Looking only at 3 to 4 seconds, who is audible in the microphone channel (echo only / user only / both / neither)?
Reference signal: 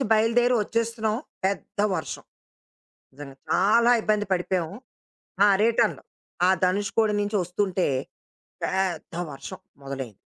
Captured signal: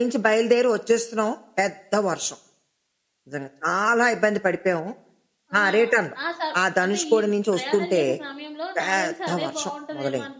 echo only